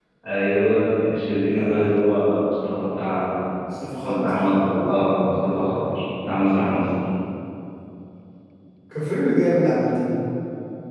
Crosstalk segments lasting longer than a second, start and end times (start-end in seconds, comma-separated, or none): none